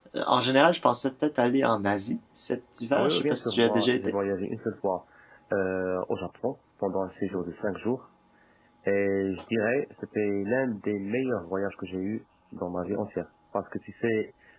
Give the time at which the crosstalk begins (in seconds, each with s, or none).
2.9 s